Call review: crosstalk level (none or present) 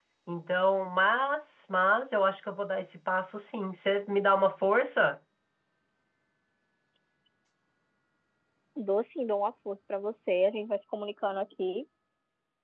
none